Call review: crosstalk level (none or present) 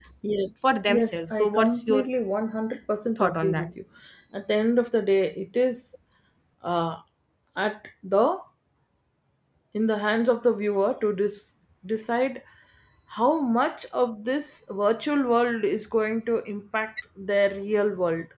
present